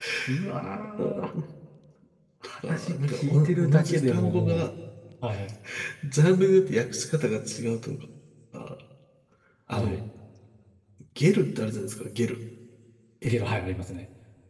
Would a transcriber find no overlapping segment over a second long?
No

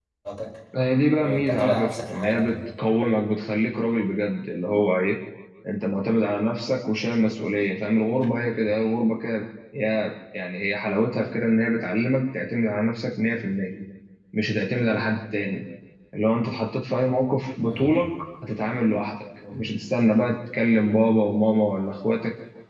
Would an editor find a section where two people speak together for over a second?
Yes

